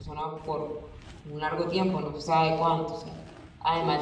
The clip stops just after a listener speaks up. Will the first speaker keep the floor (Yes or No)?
Yes